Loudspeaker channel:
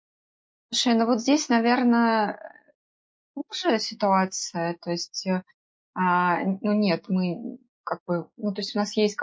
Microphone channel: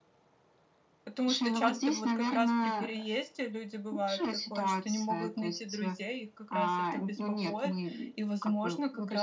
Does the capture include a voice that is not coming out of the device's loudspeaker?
Yes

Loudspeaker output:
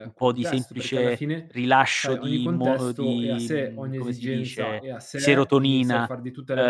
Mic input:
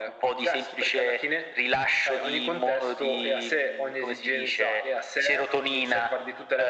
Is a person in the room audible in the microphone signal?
No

